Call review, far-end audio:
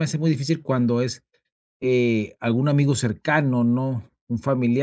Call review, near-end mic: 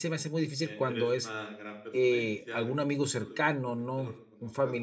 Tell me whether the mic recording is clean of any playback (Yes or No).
No